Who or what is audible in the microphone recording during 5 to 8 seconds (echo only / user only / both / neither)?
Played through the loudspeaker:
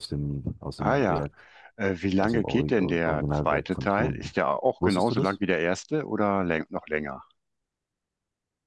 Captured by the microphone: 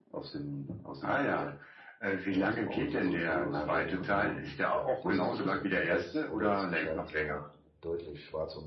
both